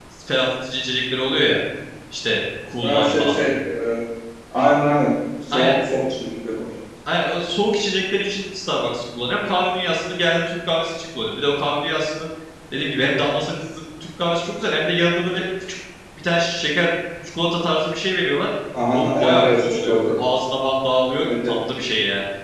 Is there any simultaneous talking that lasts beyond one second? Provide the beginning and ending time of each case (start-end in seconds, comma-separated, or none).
18.9-20.2